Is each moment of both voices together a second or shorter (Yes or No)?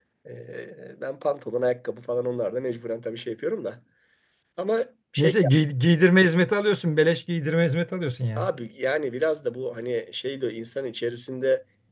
Yes